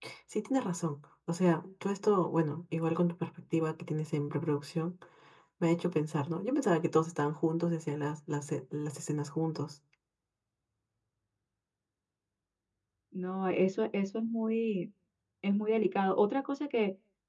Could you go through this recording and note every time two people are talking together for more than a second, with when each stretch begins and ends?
none

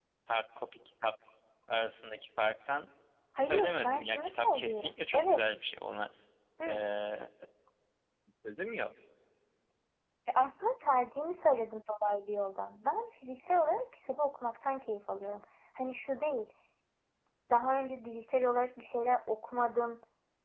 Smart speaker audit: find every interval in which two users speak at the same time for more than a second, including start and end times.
3.4-5.4

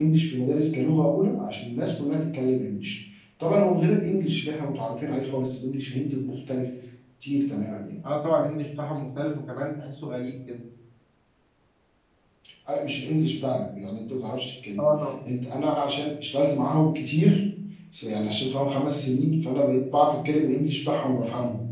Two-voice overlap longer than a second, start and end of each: none

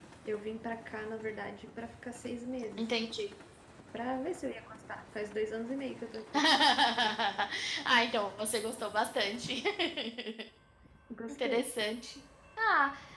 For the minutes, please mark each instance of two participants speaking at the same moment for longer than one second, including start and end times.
none

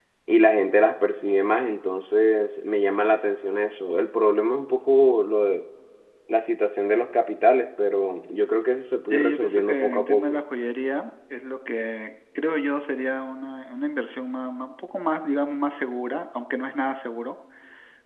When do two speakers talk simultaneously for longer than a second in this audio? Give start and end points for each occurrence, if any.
9.1-10.3

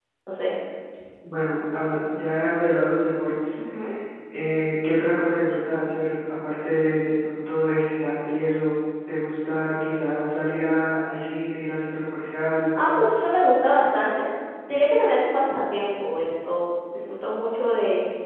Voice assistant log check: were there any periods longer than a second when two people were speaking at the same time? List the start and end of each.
none

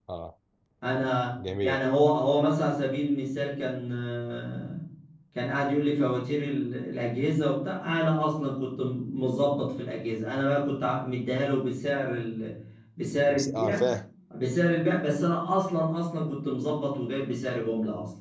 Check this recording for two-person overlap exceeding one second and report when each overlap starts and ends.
none

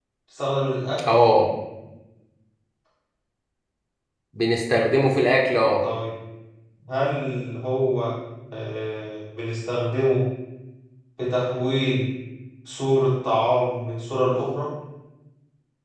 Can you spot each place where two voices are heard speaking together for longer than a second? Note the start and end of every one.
none

